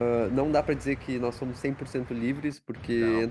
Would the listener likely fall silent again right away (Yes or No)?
Yes